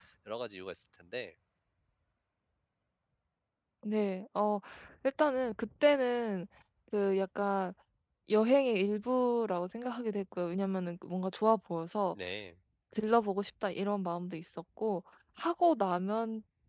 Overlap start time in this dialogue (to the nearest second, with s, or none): none